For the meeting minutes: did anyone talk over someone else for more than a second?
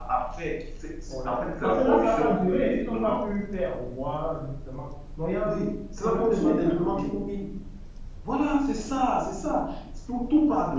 Yes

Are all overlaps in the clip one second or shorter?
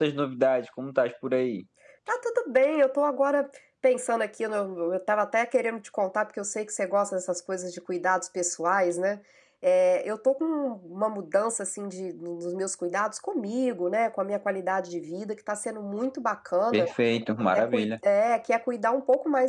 Yes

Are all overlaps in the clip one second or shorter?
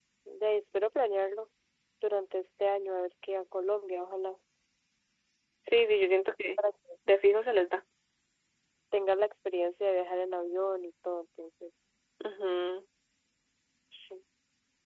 Yes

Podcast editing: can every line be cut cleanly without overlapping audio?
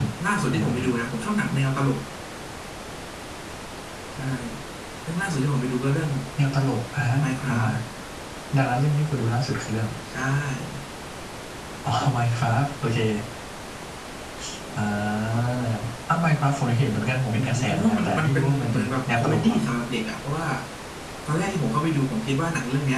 No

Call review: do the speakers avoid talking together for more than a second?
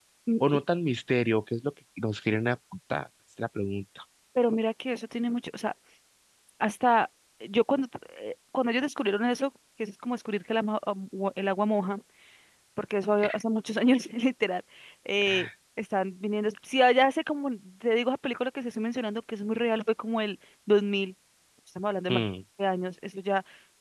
Yes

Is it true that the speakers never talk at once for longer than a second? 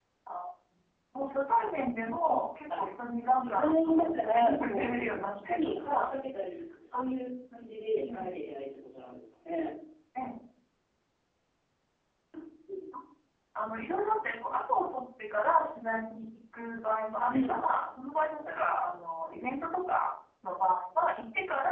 No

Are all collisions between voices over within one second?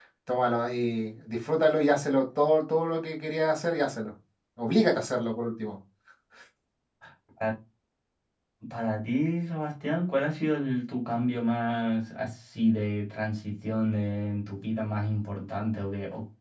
Yes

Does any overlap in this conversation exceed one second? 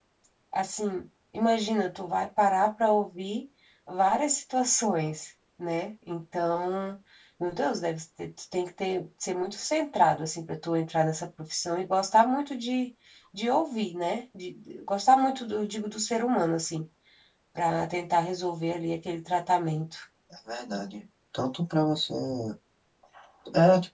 No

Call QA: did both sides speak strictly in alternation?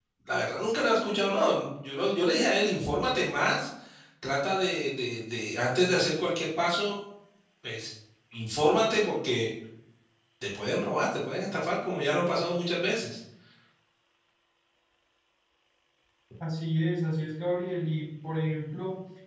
Yes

